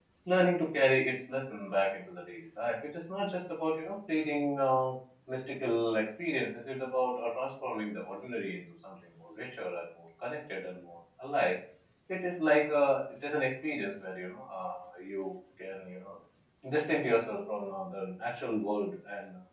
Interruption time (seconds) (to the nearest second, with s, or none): none